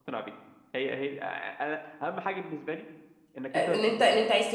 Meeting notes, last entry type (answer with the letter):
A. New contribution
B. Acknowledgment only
A